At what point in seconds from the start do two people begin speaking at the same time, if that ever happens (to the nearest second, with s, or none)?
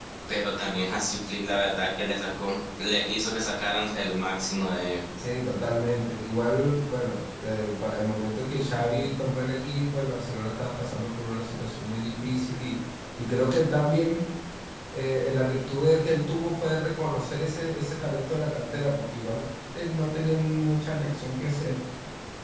none